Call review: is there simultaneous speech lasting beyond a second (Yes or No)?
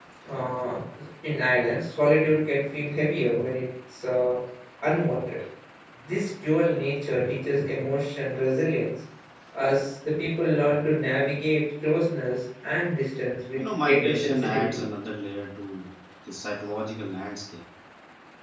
Yes